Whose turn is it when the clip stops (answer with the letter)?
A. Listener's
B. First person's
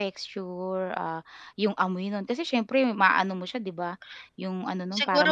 A